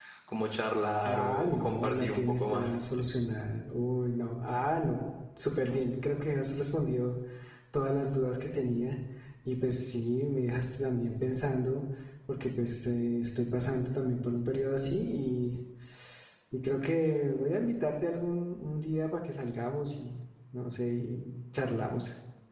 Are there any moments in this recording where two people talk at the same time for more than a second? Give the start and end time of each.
1.0-2.7

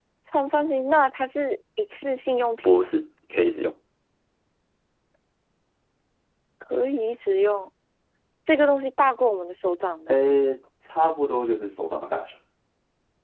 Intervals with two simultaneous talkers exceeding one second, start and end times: none

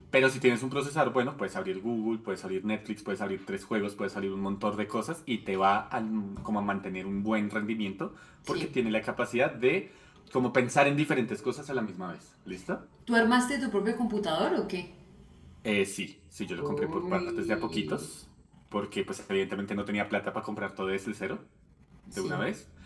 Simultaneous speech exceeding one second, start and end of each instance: 16.6-18.1

